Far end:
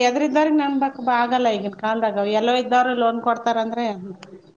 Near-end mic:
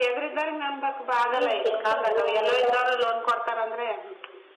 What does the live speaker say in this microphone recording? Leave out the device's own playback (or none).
ಹ್ಮ್ ಟೆನ್ಷನ್ ರೀ ಒಮ್ಮ ಇರ್